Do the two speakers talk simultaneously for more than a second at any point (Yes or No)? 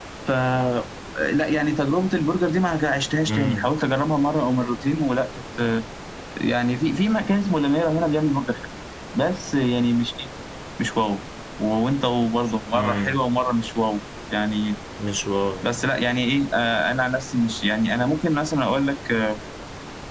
No